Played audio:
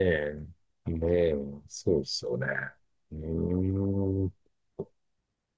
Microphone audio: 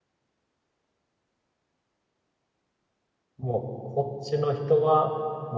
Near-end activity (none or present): present